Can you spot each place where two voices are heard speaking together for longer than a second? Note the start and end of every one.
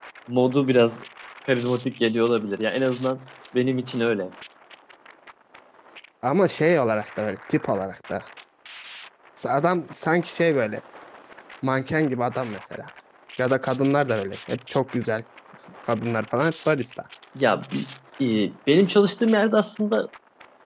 none

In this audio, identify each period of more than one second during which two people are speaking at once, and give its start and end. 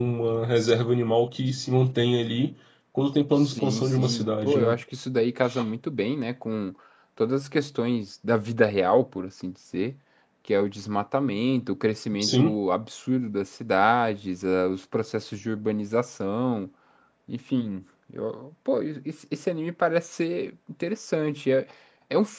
3.4-4.7

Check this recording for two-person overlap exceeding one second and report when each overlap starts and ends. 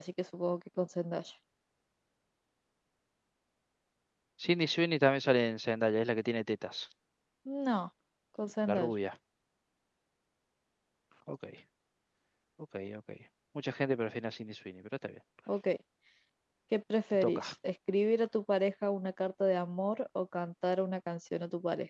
none

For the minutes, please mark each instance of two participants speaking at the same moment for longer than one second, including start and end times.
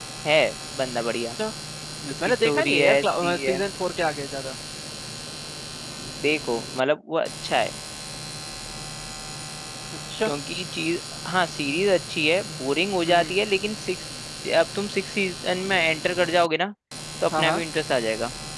2.2-3.6

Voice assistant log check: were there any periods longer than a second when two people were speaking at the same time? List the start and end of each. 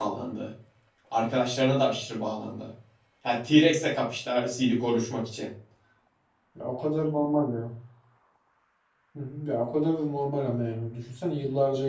none

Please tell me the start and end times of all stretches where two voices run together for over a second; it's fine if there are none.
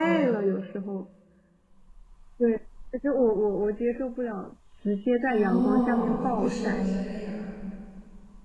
5.2-6.8

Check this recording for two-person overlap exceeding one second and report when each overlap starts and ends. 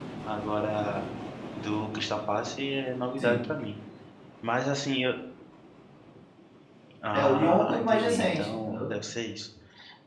7.1-8.9

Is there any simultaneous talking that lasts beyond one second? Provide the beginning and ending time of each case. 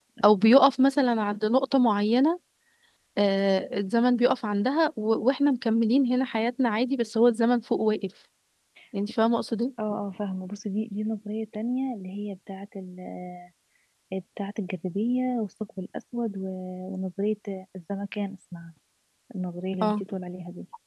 none

